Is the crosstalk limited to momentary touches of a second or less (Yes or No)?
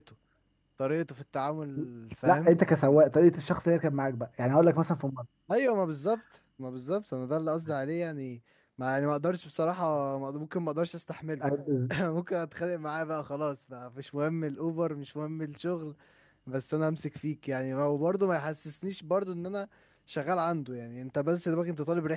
Yes